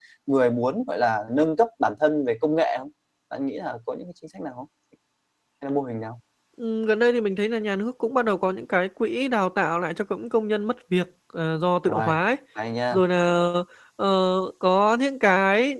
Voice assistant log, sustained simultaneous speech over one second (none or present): none